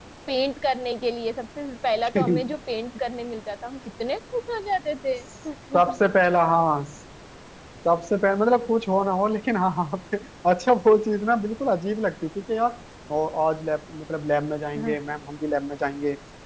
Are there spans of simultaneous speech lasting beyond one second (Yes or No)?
No